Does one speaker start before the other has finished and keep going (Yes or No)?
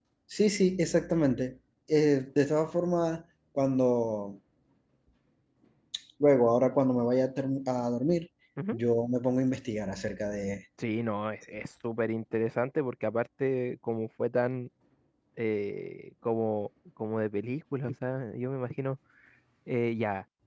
No